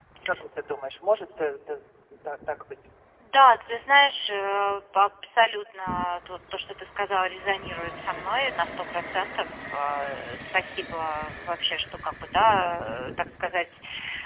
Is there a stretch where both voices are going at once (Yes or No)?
No